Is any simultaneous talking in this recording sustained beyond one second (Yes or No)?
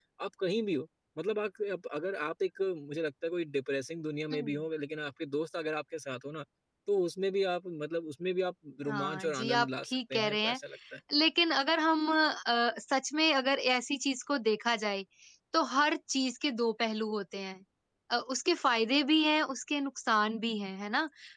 Yes